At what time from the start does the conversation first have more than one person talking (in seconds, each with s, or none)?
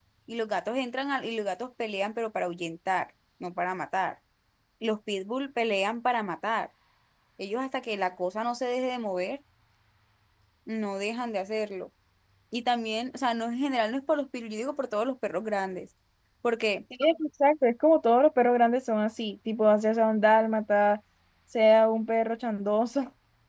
none